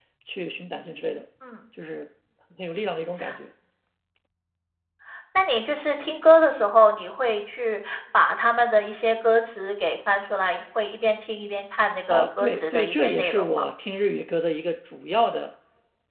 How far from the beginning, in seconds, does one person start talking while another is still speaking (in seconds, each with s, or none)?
12.1 s